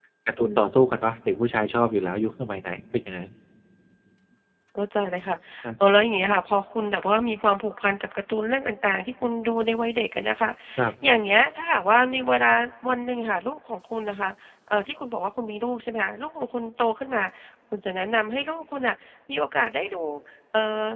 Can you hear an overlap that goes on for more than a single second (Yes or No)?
No